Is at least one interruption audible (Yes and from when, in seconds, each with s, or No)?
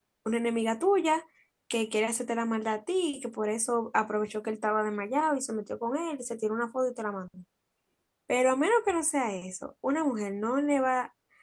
No